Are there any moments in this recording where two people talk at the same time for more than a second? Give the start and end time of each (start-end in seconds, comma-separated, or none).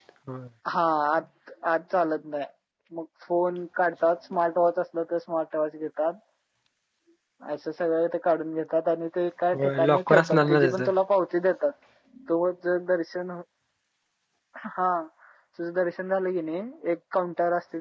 9.6-10.9